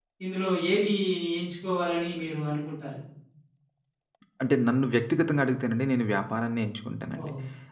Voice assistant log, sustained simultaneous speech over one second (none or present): none